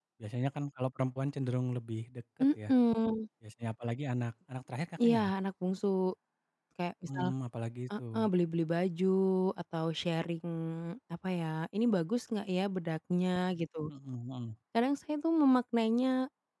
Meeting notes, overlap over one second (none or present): none